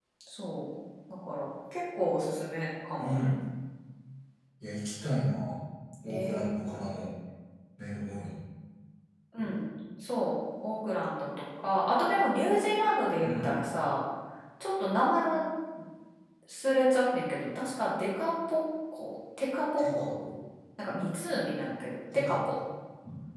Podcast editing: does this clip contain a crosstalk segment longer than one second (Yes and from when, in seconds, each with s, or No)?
No